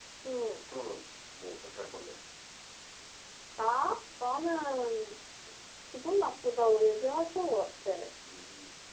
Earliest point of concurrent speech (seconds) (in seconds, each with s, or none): none